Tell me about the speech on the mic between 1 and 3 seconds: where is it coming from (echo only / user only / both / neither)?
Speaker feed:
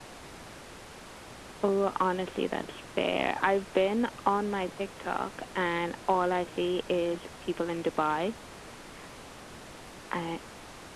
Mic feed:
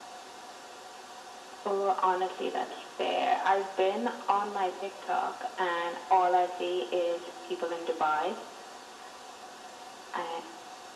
echo only